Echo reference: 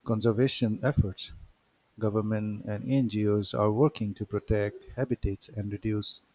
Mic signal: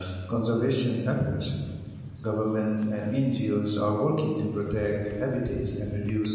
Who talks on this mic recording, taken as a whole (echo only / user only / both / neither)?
echo only